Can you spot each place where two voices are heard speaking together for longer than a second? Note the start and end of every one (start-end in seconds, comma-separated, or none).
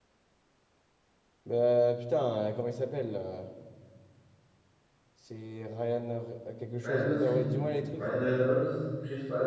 6.8-8.0